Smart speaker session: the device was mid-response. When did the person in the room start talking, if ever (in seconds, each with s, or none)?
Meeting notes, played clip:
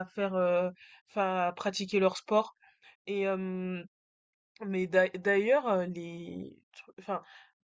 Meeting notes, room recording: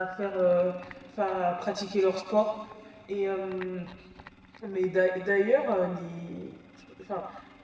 none